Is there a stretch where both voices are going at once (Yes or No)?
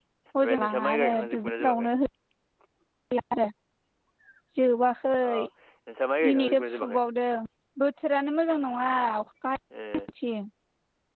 Yes